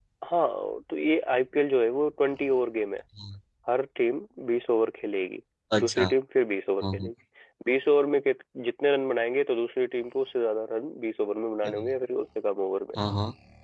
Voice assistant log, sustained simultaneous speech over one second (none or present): none